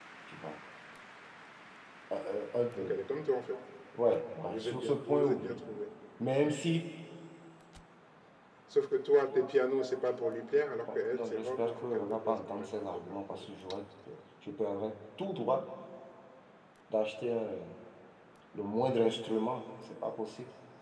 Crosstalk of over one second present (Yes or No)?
Yes